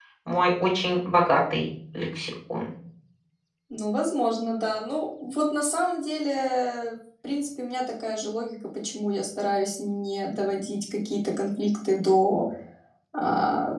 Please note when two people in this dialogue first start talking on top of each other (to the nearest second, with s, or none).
none